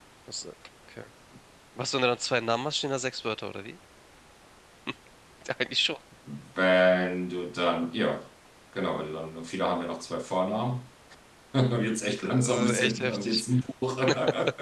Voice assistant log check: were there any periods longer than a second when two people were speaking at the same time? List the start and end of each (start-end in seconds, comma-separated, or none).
12.2-13.4